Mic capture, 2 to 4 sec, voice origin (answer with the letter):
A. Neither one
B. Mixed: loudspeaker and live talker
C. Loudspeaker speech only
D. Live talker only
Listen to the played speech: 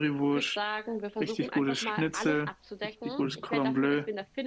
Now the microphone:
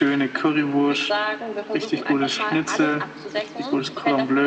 C